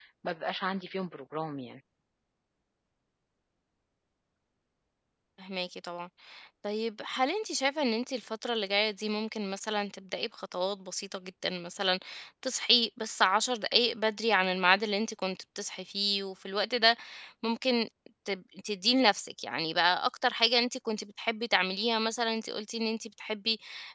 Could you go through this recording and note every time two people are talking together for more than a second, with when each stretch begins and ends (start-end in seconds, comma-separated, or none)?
none